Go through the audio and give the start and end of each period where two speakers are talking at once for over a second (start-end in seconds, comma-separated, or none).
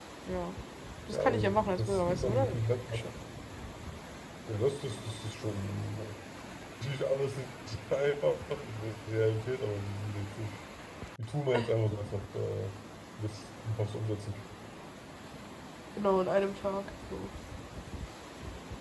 1.1-3.1